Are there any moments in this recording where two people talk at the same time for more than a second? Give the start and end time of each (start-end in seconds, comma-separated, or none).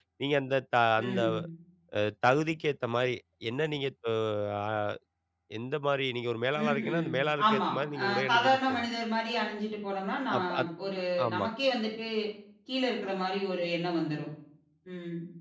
7.5-8.9